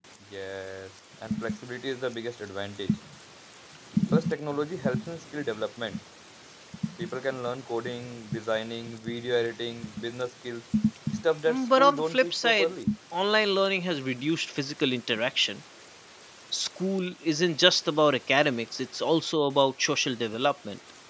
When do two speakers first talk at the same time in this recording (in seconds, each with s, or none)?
11.5 s